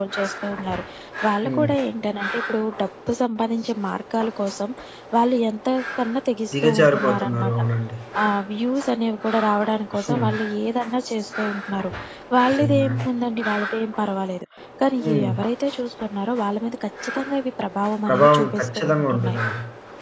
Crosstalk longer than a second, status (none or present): present